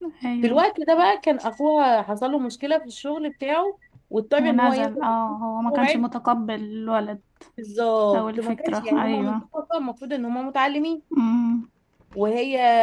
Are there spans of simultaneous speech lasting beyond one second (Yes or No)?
Yes